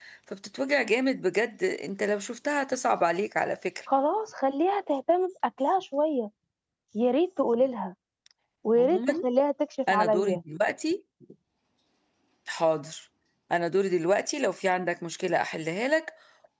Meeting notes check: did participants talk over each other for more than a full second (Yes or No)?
No